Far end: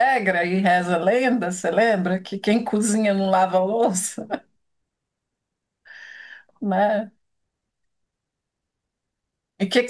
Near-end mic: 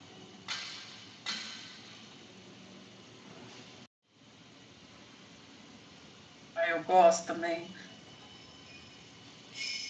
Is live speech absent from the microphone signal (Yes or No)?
No